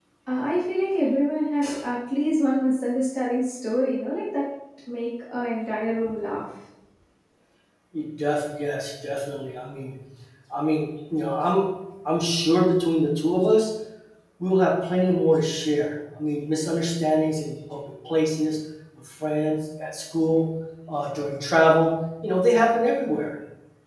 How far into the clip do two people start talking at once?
none

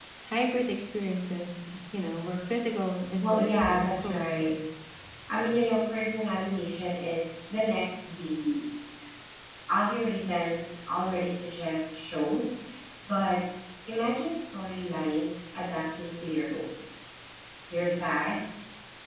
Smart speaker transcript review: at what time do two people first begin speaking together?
3.2 s

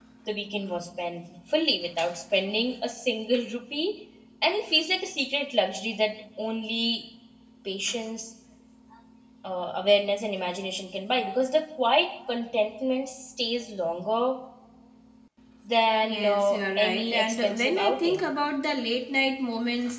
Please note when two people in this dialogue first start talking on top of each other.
16.1 s

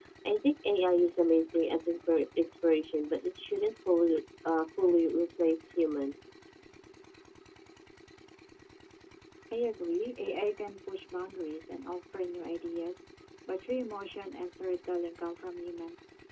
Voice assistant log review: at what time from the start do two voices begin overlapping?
none

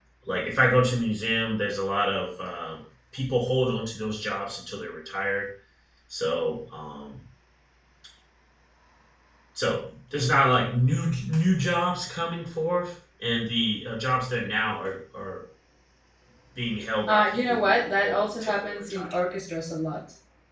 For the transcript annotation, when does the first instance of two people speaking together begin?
17.1 s

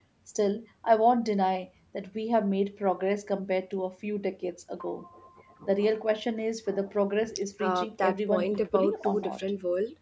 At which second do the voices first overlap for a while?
7.6 s

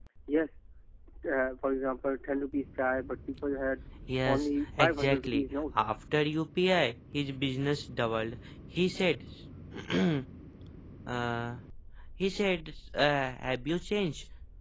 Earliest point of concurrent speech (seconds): 4.2 s

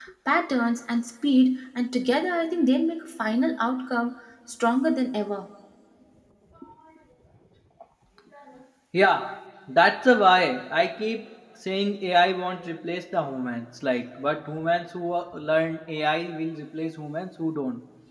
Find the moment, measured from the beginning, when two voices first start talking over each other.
none

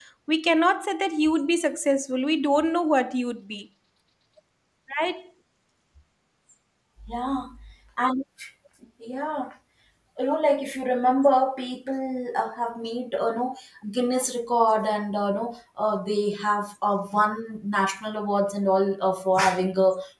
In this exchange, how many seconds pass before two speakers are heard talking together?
none

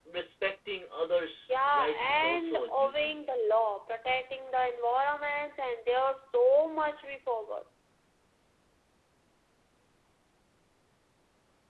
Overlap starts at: 1.5 s

